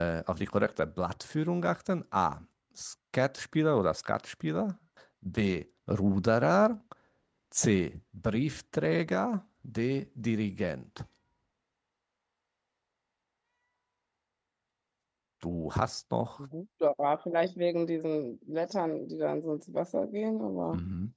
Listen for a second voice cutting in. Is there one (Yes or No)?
No